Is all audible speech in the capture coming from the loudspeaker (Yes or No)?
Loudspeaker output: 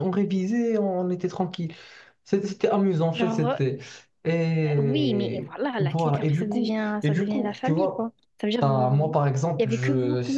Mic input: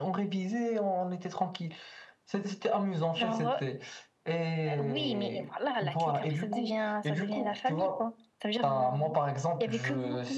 Yes